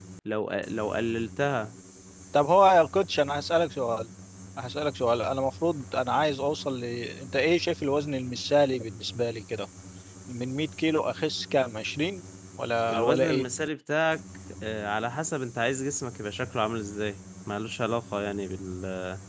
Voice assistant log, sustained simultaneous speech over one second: none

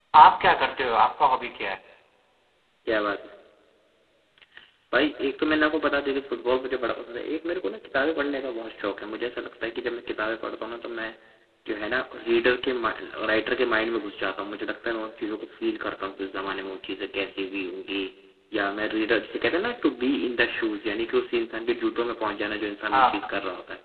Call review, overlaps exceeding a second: none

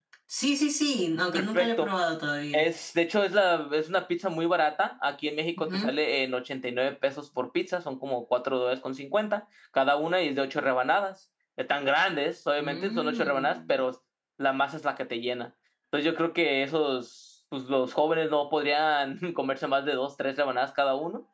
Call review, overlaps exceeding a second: present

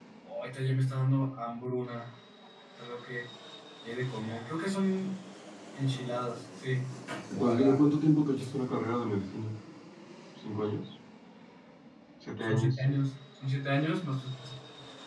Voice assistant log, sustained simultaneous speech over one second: none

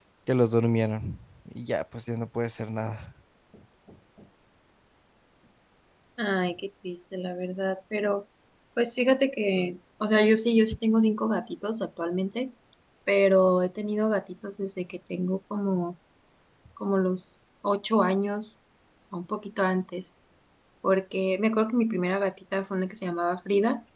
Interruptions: none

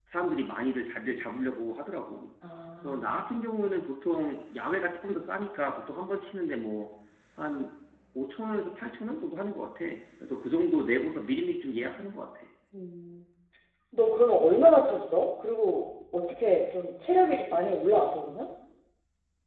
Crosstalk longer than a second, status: none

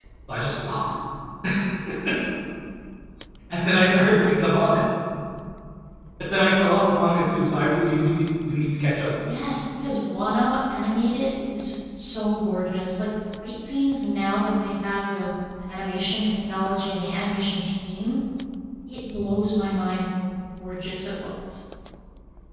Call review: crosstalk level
none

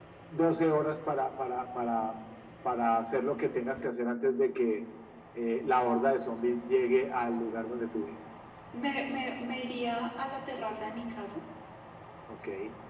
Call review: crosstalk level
none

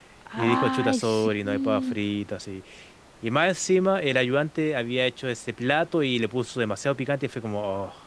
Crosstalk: present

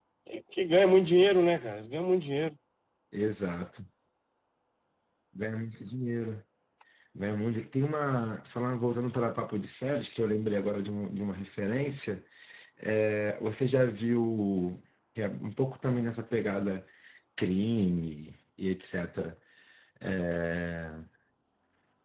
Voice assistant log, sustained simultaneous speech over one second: none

